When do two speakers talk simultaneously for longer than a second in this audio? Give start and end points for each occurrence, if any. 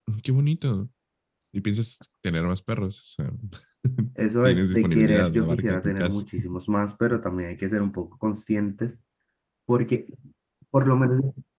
4.4-6.2

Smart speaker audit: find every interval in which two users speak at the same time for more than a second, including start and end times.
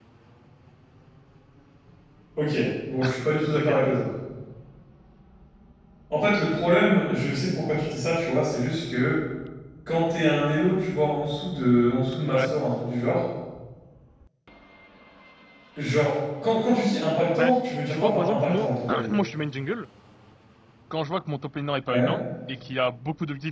17.4-19.1

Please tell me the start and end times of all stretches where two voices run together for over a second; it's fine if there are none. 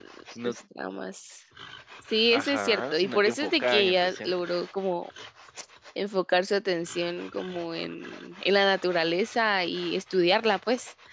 2.3-4.3

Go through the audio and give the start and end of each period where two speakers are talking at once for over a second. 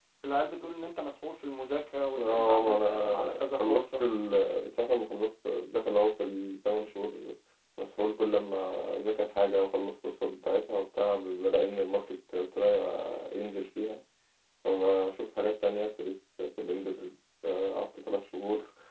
2.2-4.0

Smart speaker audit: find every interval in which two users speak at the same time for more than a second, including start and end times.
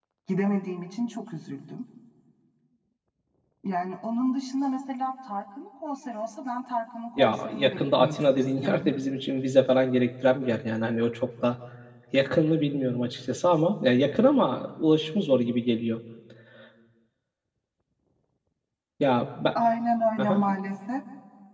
7.2-8.9

